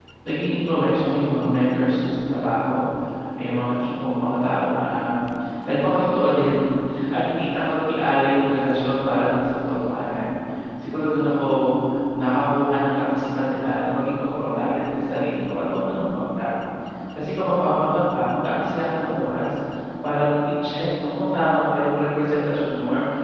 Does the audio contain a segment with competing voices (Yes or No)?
No